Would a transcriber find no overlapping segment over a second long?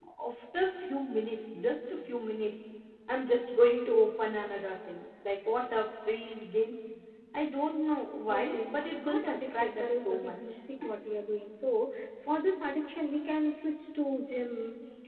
No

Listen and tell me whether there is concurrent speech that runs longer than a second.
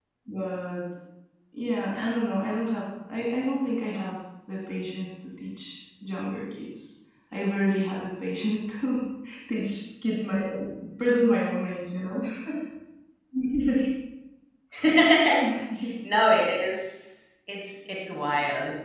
No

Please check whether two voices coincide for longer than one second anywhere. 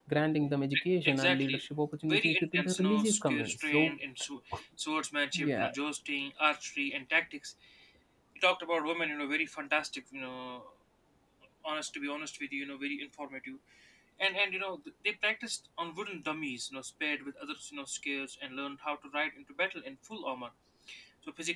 Yes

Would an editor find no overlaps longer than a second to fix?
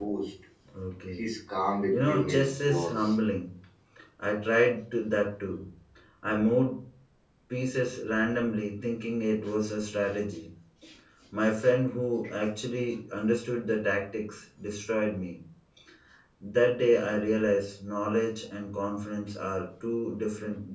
No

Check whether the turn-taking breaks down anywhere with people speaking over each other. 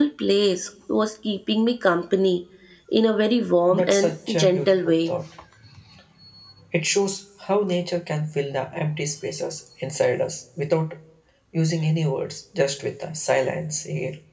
Yes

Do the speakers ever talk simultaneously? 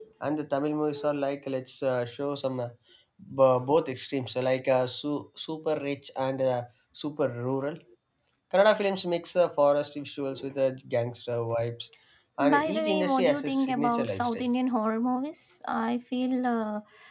Yes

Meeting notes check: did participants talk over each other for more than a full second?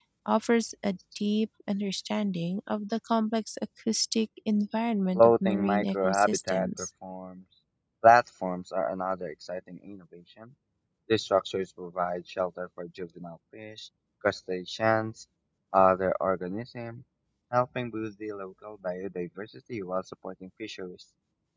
Yes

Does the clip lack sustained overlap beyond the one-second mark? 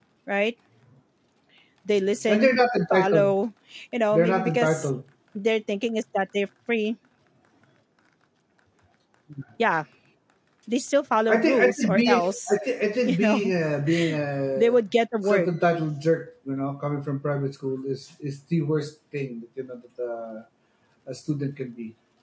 No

